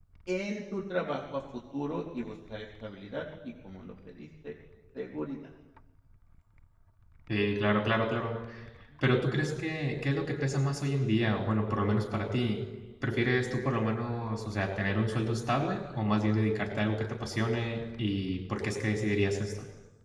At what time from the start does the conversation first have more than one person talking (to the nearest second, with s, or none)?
none